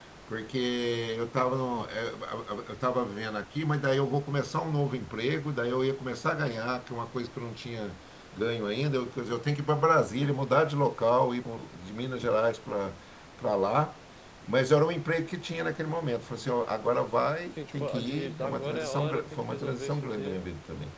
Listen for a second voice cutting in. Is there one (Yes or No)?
Yes